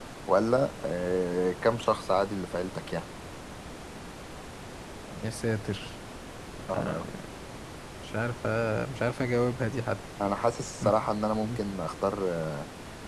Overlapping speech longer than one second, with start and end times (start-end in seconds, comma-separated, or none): none